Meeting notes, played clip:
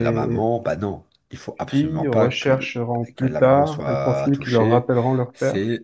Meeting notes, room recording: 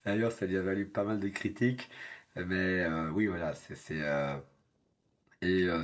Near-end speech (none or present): present